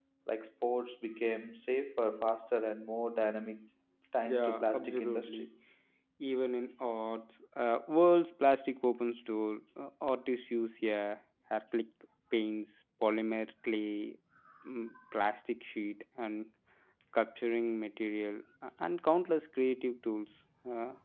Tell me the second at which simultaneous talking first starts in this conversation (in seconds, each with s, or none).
4.3 s